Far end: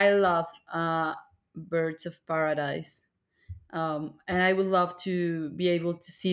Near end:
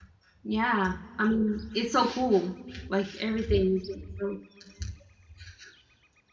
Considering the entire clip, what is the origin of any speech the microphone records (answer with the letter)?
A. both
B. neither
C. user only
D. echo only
C